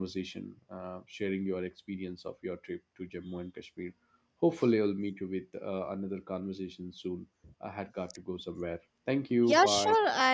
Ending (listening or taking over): taking over